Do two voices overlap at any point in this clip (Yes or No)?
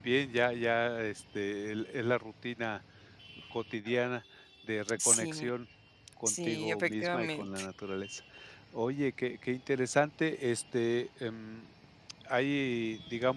Yes